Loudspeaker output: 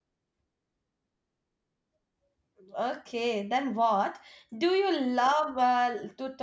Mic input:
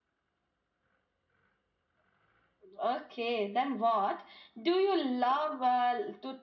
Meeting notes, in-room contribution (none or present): none